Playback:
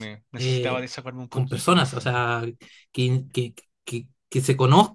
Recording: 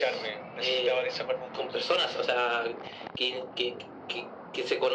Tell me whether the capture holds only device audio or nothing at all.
Yes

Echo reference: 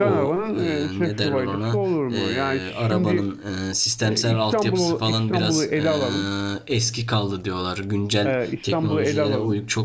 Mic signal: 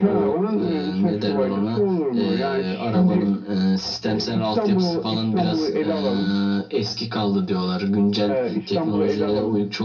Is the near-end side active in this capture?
No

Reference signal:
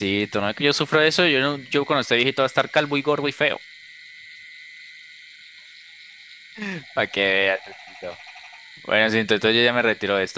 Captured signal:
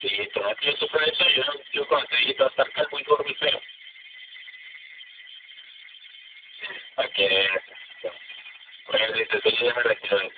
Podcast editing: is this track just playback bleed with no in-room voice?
Yes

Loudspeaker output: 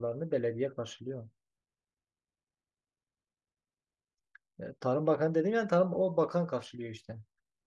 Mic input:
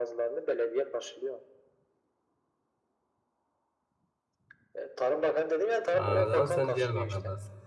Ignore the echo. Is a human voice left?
Yes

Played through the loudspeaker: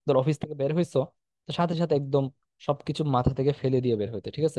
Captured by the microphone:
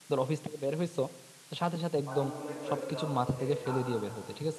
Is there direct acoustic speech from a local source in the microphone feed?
Yes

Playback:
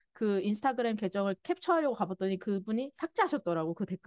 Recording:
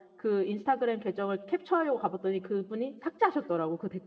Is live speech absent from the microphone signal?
Yes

